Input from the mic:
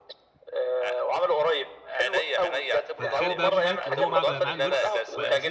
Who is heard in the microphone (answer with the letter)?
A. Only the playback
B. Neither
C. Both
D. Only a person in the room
C